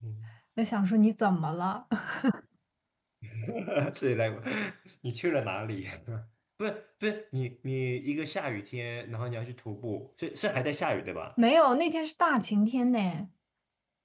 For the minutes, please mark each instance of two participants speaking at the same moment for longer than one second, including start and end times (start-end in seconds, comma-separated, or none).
none